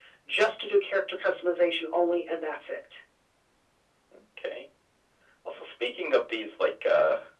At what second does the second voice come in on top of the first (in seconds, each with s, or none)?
none